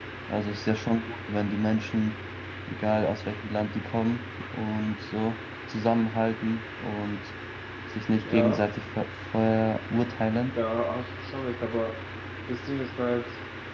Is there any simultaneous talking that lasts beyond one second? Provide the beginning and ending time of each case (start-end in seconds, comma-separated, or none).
none